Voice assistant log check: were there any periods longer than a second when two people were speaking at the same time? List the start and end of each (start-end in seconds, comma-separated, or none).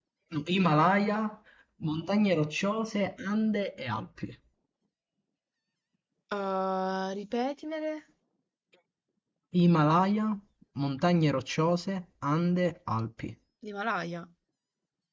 none